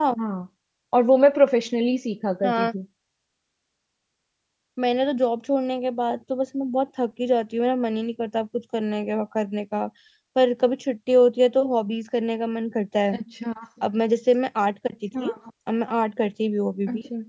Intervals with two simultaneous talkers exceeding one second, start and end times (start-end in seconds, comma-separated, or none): none